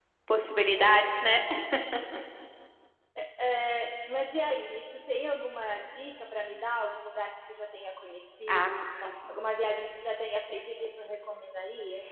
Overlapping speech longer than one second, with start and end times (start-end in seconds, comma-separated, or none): none